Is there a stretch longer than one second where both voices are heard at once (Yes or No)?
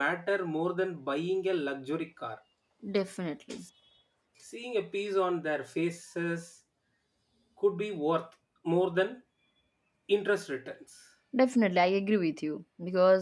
No